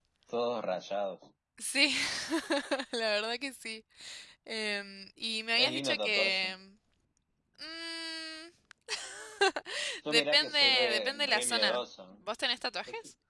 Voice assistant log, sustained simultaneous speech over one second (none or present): present